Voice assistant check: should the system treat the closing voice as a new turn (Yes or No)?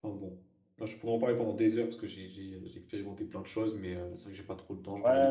Yes